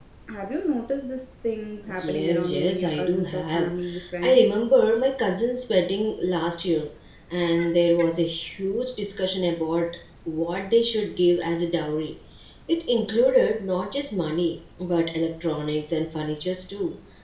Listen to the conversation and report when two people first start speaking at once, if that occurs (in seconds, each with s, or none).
1.9 s